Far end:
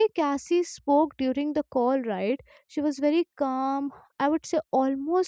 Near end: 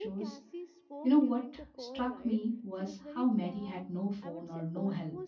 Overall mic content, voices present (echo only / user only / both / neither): both